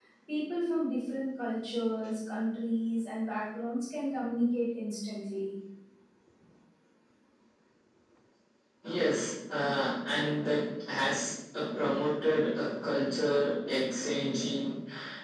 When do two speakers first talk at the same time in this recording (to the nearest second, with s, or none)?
none